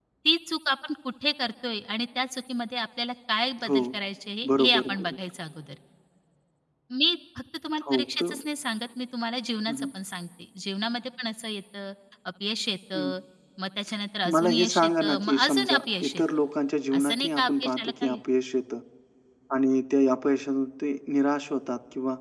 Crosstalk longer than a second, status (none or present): present